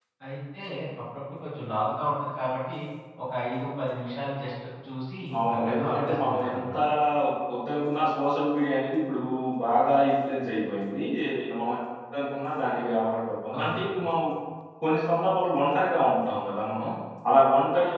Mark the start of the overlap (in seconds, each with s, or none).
5.6 s